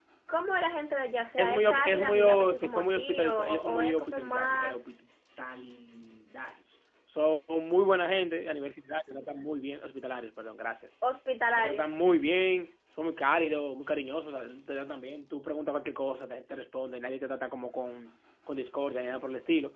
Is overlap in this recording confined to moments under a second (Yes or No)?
No